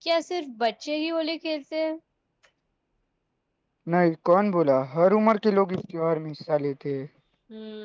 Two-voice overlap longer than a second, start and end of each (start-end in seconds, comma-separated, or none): none